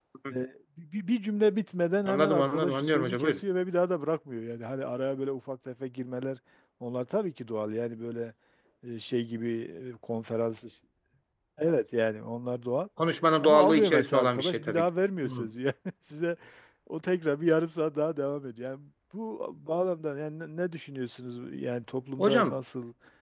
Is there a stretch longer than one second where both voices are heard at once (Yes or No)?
Yes